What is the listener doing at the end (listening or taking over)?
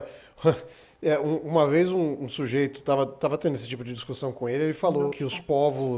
listening